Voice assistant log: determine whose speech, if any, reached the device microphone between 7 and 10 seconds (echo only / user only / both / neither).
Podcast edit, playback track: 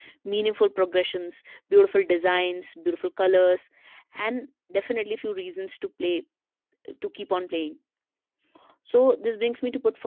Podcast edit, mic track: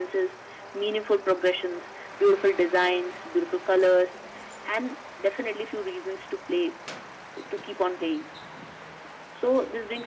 echo only